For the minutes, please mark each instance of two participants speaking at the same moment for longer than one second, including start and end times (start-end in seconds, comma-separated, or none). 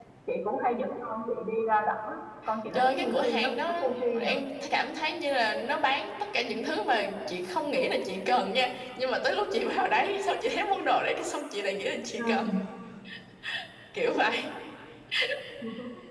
2.7-4.4